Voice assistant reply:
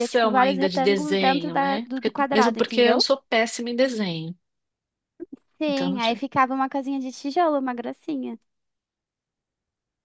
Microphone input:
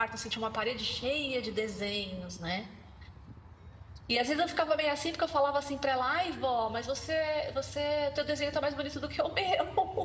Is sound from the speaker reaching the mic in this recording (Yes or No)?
No